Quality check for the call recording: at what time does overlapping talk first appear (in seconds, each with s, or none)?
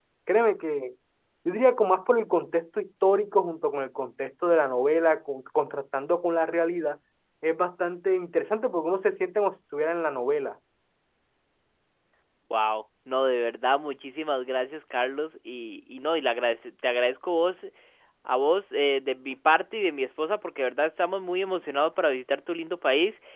none